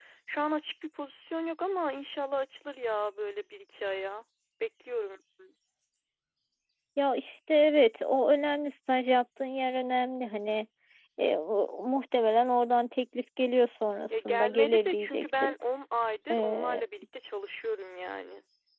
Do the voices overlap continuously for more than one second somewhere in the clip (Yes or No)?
Yes